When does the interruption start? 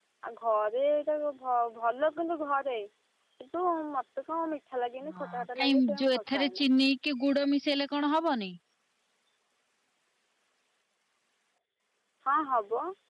5.0 s

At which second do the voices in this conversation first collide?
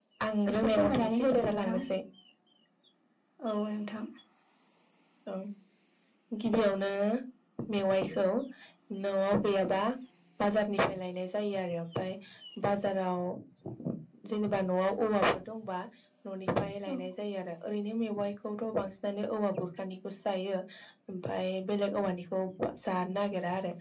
0.5 s

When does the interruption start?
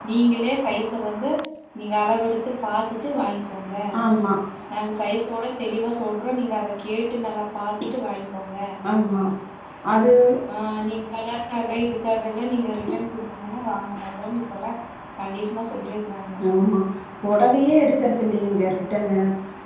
none

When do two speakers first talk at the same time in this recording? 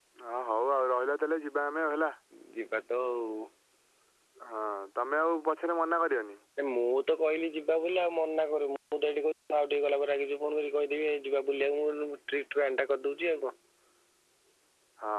none

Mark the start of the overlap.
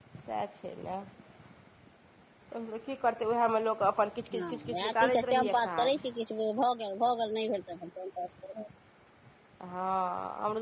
4.3 s

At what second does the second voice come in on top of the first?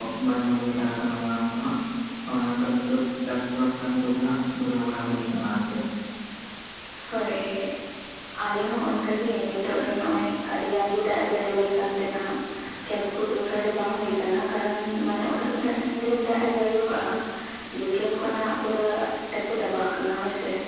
none

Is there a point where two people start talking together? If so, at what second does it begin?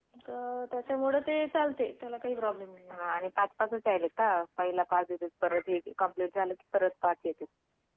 none

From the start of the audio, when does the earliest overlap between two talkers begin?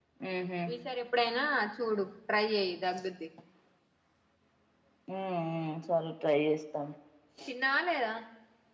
none

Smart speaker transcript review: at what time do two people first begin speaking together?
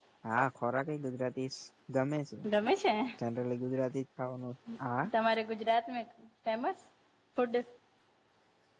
none

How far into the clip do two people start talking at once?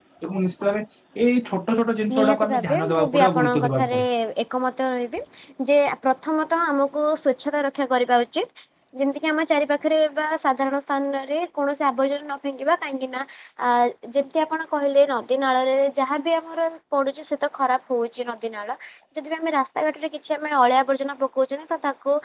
2.1 s

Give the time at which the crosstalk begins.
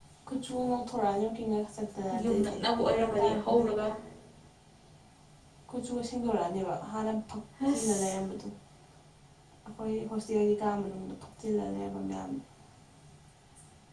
2.2 s

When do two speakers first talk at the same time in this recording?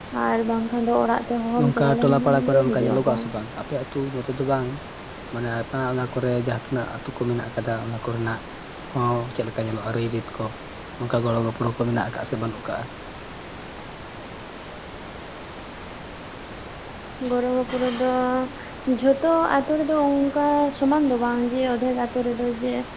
1.6 s

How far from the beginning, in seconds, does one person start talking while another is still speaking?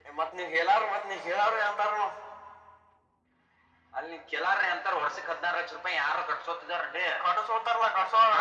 none

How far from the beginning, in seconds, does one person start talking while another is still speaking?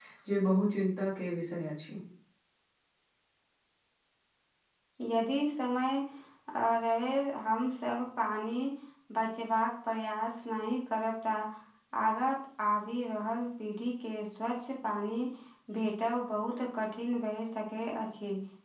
none

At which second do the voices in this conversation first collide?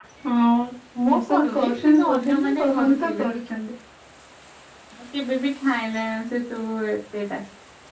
1.1 s

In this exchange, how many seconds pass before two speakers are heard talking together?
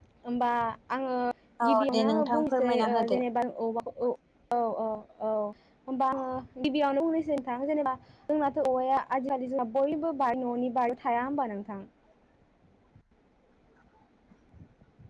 1.7 s

